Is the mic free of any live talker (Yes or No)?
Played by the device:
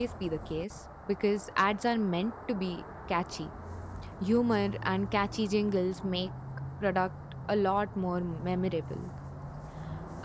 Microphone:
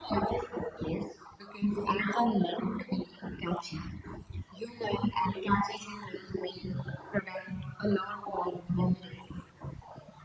Yes